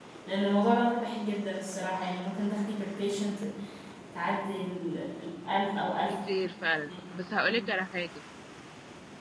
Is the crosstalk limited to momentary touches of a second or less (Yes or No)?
Yes